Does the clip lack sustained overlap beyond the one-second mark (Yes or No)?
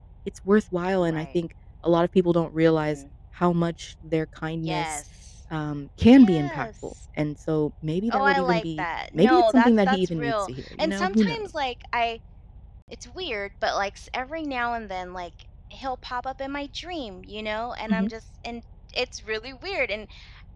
No